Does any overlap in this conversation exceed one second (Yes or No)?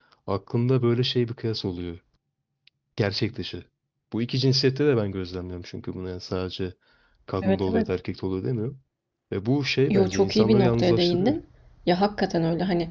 Yes